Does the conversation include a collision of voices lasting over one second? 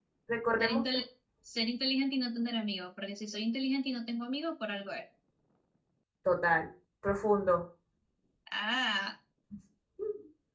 No

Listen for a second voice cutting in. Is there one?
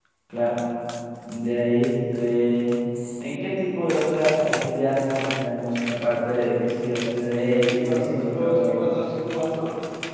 Yes, from 7.5 s

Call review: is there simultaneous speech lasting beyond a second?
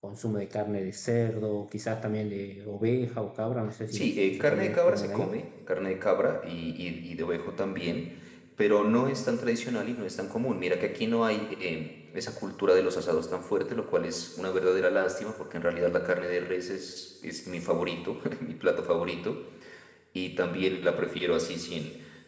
Yes, from 3.9 s

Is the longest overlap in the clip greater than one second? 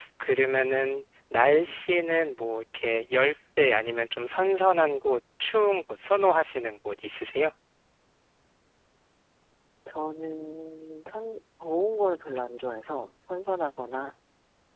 No

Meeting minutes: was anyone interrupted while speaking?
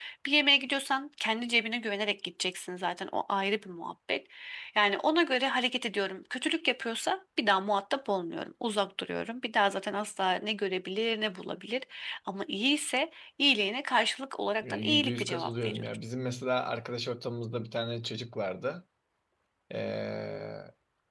Yes, from 14.6 s

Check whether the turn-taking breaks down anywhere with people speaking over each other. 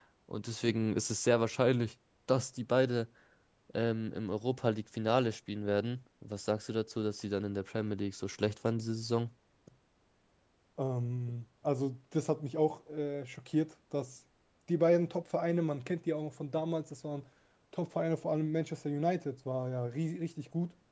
No

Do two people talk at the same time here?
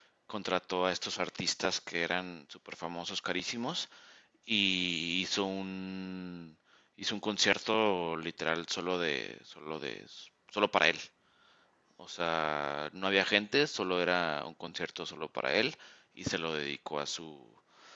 No

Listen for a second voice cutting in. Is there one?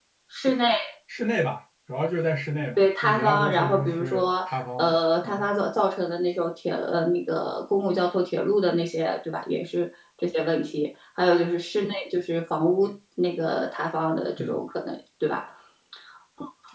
Yes, from 2.8 s

